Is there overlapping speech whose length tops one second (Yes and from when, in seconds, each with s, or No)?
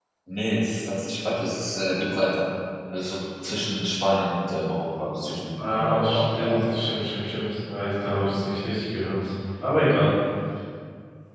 Yes, from 5.6 s